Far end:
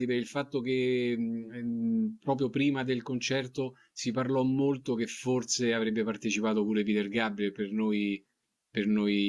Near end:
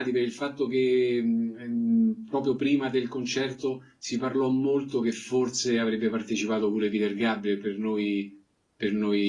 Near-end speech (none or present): none